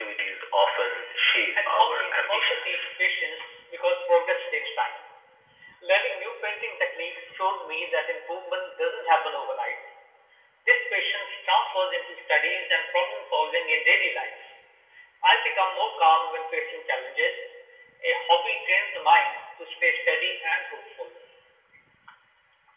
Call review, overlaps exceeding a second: present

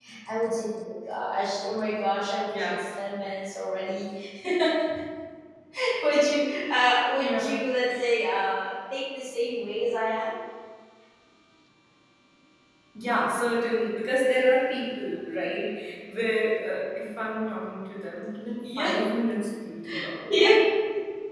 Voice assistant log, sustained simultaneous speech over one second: none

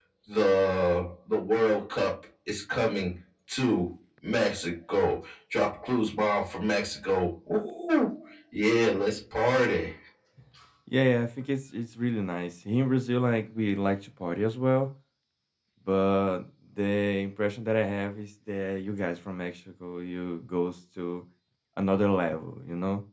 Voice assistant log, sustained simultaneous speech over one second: none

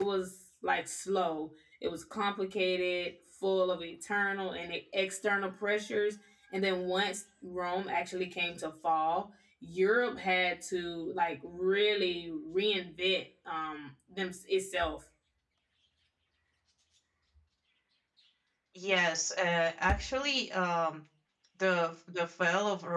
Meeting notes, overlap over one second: none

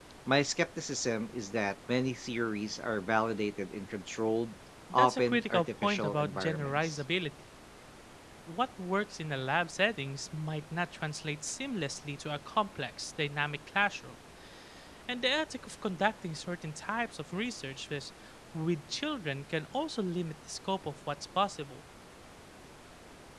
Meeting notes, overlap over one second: present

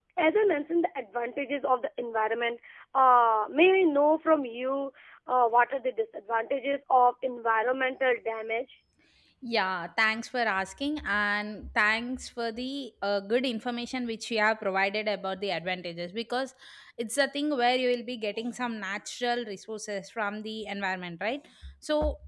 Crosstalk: none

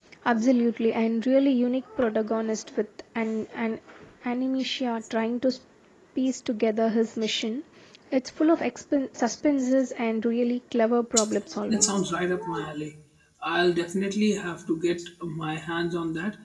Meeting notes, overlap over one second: none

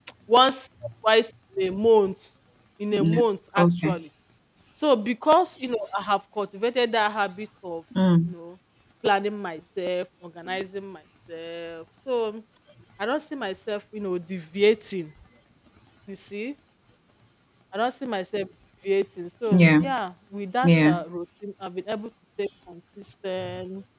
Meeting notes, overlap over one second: none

